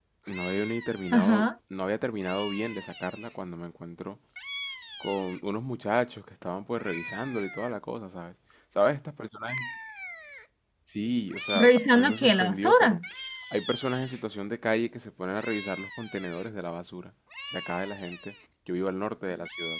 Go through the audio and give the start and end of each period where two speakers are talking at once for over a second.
11.6-13.0

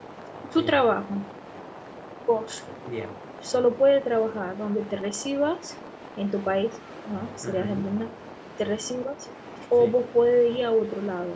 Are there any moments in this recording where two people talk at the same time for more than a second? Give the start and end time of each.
none

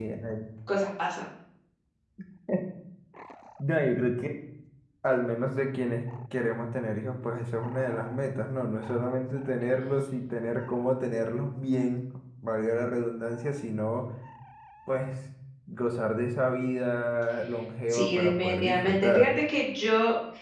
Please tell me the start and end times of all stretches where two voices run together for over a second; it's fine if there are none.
17.9-19.4

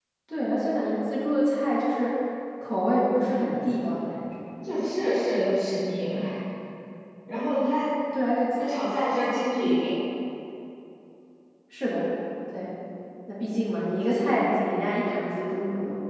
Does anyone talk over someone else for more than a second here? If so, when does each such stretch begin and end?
none

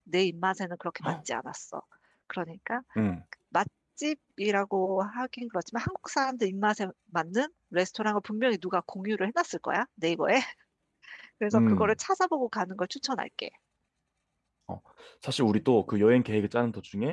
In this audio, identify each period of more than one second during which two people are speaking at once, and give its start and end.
none

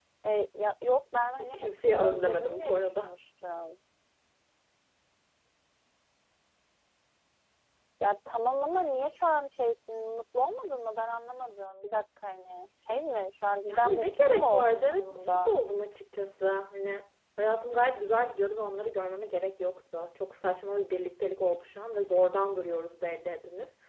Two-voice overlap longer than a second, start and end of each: 1.2-3.1, 13.7-15.6

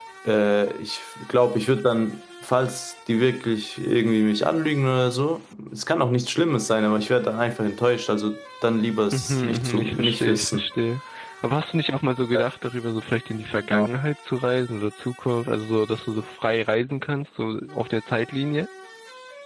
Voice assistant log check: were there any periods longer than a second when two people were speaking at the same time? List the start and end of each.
9.1-10.6

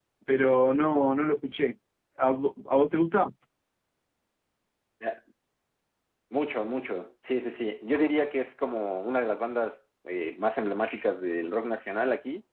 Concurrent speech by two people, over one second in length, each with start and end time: none

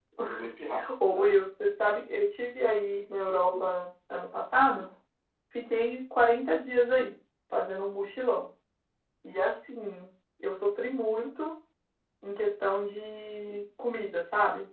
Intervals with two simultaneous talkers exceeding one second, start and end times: none

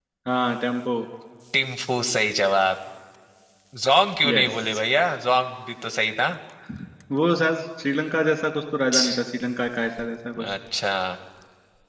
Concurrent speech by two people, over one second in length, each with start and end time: none

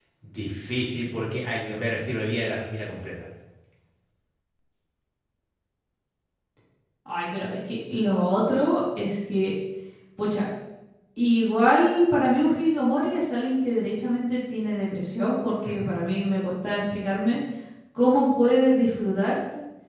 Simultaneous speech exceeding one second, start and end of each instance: none

